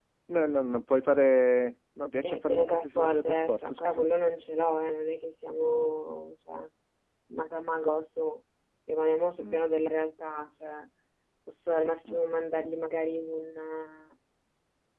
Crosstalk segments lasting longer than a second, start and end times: 2.2-4.1

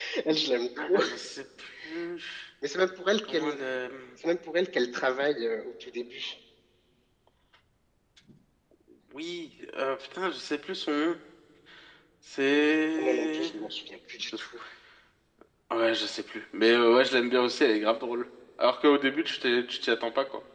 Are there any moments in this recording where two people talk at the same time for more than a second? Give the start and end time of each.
none

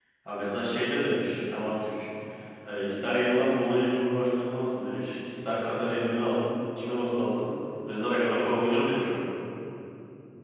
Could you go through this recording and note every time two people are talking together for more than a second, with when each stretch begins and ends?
none

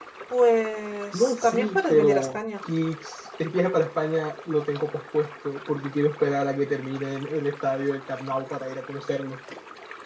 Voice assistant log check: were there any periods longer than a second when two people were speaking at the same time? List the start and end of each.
1.1-2.4

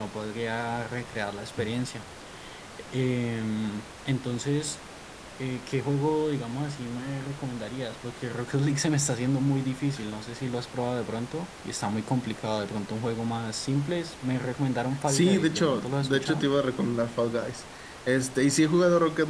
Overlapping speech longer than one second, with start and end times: 15.1-16.4

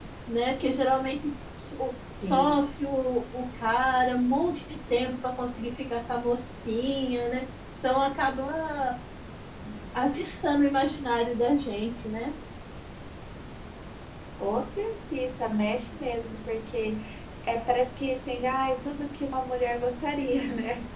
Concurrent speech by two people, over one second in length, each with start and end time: none

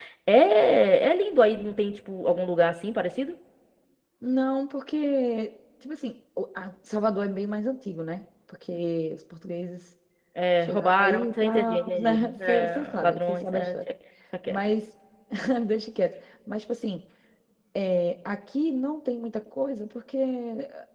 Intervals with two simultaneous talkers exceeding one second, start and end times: 10.6-13.7

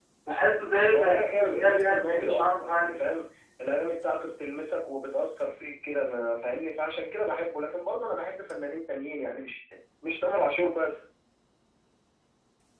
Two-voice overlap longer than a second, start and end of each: 0.9-3.0

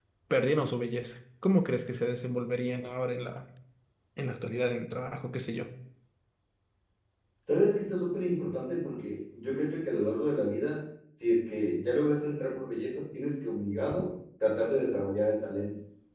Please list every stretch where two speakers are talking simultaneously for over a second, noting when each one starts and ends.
none

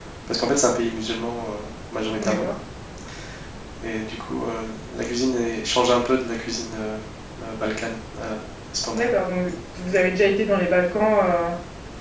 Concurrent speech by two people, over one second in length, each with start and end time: none

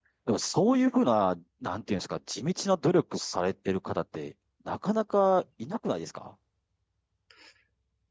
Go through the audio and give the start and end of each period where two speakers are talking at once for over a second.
none

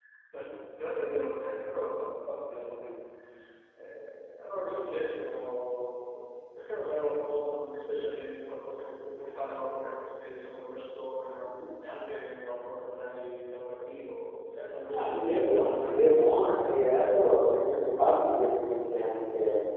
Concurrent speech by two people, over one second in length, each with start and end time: 14.9-16.6

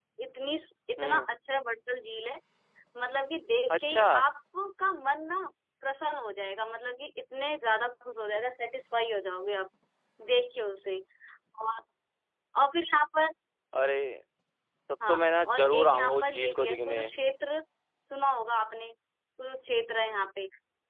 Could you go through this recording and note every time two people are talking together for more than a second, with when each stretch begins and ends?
15.5-17.0

